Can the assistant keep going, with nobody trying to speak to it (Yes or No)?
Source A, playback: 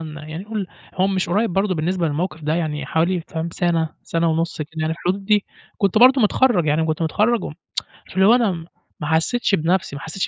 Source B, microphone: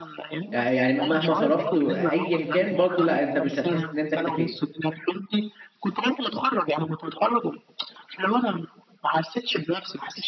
No